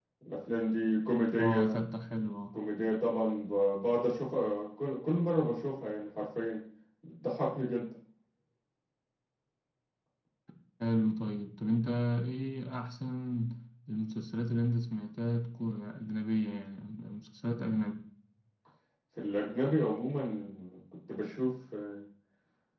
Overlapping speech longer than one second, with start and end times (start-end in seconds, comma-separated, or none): none